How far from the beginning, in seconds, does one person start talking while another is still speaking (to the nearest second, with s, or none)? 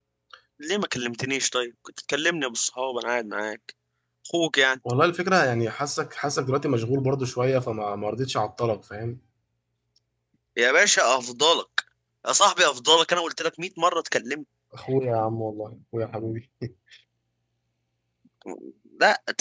none